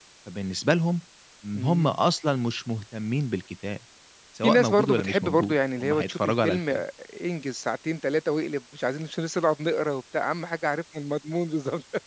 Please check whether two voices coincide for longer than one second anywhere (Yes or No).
Yes